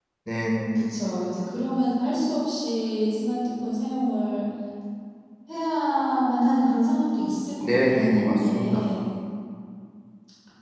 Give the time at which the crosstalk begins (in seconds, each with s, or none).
7.6 s